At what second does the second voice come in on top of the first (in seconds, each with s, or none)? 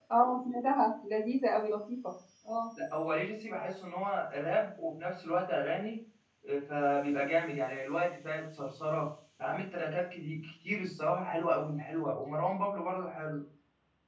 none